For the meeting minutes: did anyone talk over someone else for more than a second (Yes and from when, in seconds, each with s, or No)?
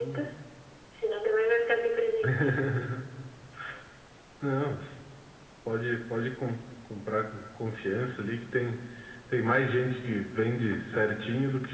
No